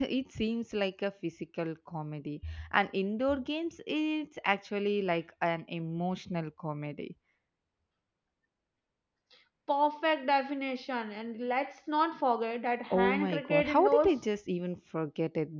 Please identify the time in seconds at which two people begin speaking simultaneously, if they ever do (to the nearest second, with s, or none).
13 s